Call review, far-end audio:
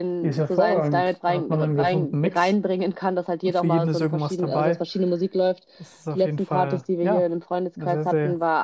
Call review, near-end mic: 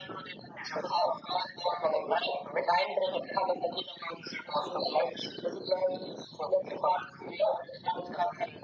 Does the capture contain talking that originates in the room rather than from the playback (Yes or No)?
No